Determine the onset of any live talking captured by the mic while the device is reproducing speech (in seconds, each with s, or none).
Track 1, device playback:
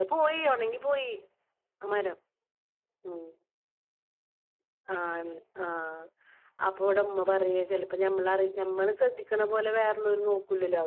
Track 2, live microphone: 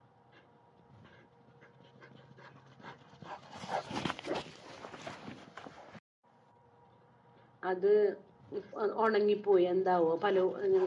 7.7 s